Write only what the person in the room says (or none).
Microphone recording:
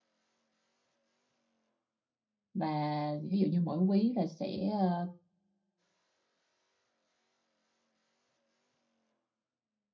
và ví dụ như mỗi quý là sẽ ờ,